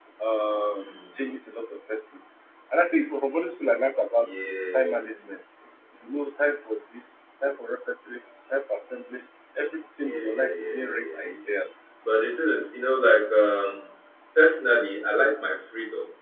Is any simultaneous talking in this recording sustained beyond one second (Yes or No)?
Yes